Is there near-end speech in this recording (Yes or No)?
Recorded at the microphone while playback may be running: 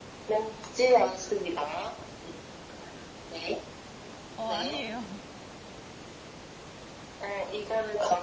Yes